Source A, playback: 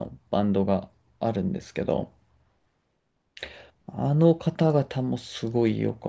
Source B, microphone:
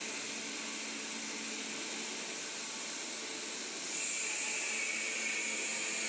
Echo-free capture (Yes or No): Yes